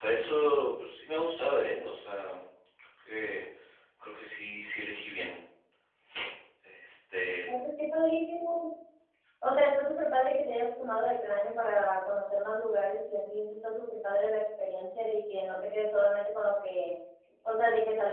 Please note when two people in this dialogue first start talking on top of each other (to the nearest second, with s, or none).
none